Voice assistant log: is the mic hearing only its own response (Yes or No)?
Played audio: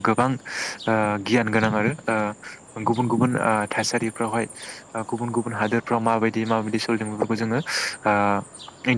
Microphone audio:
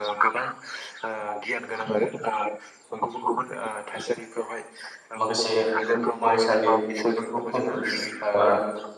No